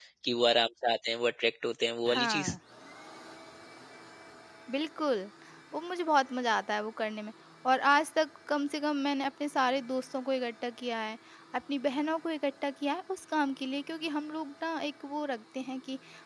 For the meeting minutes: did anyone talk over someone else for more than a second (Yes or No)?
No